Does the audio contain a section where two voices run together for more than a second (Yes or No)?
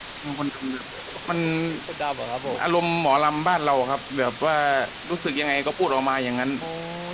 No